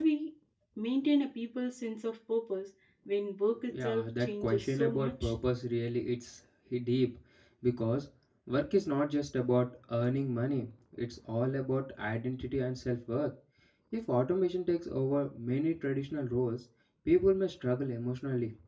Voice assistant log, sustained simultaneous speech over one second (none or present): present